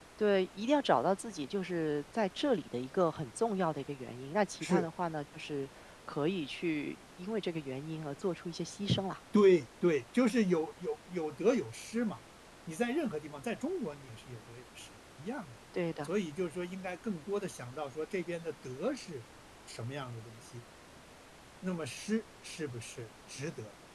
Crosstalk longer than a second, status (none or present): none